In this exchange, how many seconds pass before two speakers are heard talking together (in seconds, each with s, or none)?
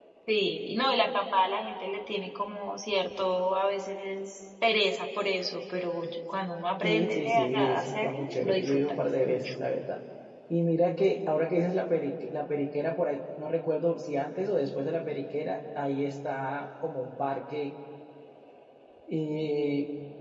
6.8 s